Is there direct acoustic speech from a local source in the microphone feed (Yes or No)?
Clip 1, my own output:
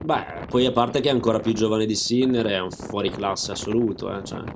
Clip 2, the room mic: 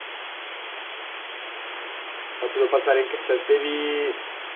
Yes